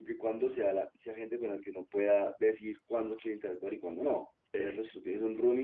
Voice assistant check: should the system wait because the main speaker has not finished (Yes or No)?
Yes